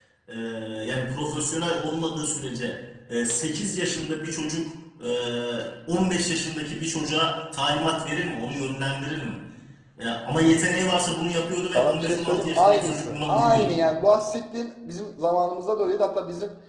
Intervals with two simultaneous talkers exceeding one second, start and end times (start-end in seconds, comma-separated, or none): 11.7-13.8